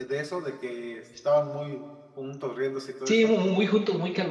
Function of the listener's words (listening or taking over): taking over